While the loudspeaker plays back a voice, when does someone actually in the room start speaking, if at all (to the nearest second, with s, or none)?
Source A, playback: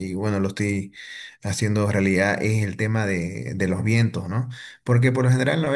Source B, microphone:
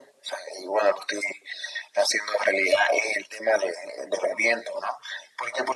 none